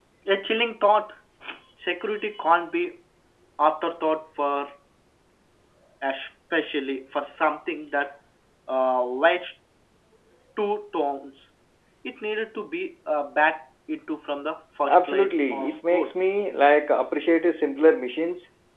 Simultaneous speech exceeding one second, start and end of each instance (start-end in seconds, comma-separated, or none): 14.8-16.1